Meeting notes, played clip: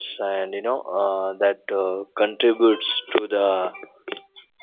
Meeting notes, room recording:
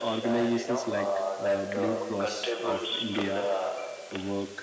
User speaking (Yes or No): Yes